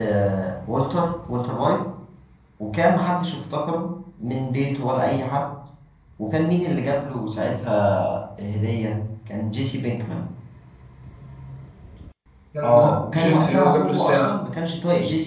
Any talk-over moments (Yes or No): Yes